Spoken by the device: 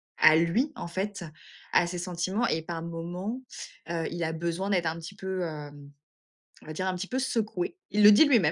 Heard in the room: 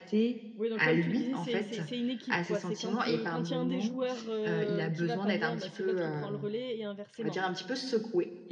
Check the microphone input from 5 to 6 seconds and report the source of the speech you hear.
both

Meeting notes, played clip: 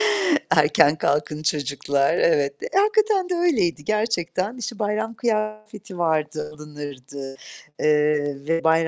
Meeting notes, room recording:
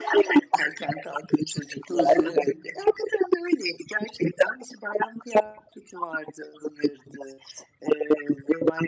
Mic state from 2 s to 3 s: both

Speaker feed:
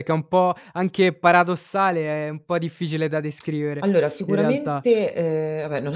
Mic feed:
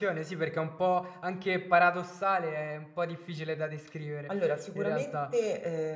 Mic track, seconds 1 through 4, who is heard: echo only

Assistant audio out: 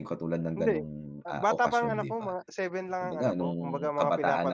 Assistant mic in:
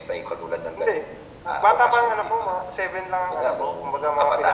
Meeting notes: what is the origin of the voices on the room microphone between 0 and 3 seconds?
echo only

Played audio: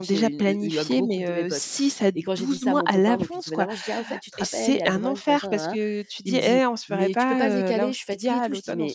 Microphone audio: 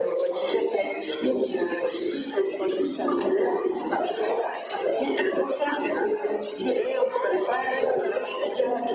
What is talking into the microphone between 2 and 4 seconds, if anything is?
echo only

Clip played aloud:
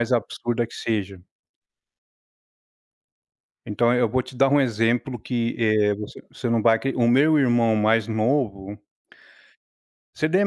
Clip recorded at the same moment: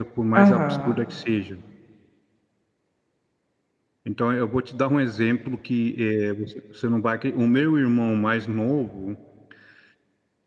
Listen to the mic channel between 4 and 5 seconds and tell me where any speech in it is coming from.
echo only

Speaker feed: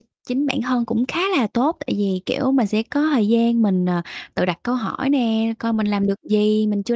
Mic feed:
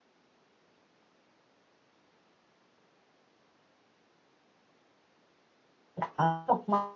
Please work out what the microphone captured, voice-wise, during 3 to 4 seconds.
neither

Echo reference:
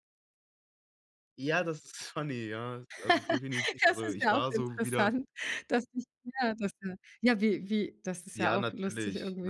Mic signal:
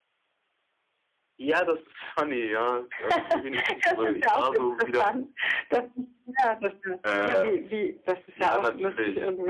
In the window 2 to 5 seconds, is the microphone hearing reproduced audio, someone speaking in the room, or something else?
echo only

